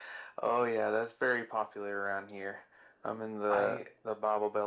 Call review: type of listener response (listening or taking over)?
listening